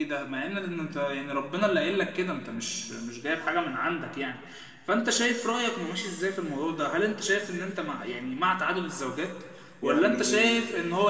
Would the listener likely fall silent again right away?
Yes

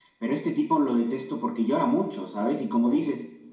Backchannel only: Yes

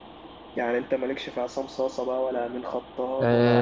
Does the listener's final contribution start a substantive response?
Yes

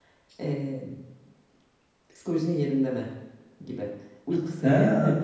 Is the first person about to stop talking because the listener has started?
Yes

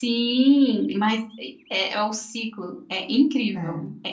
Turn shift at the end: No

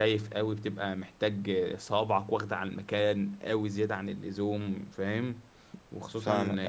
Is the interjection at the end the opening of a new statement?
No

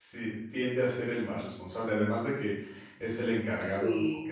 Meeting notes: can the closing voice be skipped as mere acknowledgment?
Yes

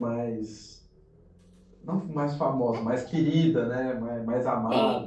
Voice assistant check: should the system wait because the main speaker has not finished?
No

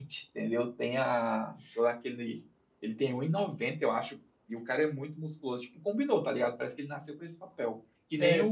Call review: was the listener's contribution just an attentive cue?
Yes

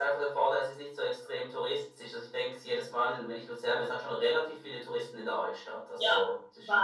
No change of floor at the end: No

